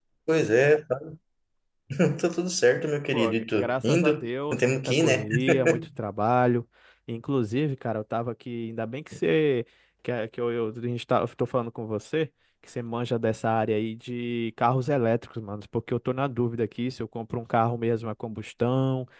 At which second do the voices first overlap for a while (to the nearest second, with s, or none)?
3 s